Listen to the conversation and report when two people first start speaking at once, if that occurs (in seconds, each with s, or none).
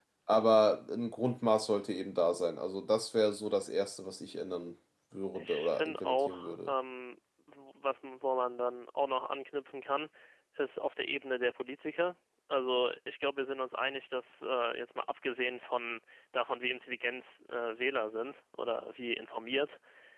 5.3 s